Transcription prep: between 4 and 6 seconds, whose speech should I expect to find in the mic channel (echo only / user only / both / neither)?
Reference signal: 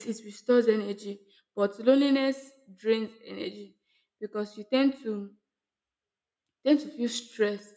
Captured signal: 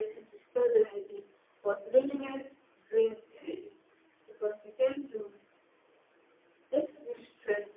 echo only